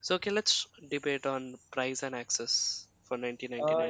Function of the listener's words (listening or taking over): taking over